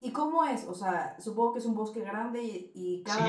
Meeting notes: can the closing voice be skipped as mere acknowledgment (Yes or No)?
No